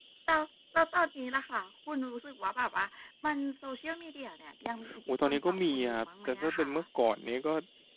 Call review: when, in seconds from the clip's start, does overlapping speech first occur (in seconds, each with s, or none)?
5.1 s